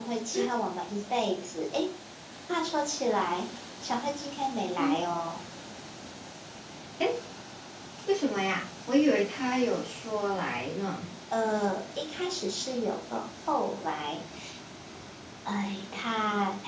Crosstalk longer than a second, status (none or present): none